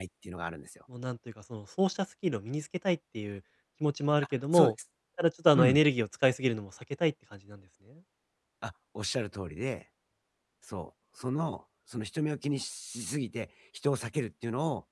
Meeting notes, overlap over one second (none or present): none